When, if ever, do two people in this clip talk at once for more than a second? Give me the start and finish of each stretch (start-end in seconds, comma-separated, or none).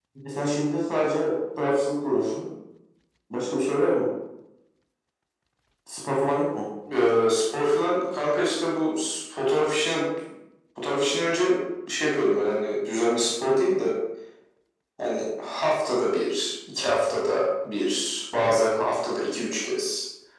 none